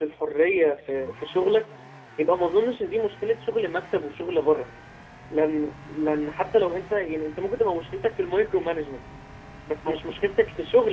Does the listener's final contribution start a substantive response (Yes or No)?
No